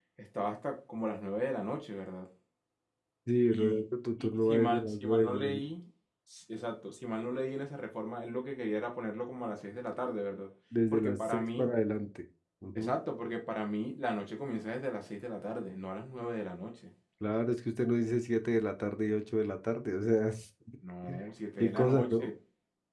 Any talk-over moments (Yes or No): Yes